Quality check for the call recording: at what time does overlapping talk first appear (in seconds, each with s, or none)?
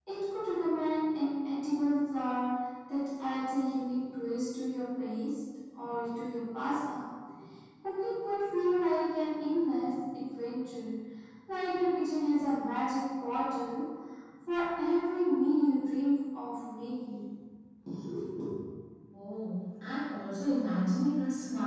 none